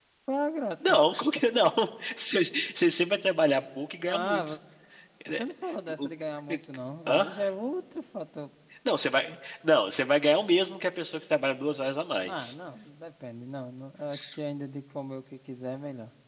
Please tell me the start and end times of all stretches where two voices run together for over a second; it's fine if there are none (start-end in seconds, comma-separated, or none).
none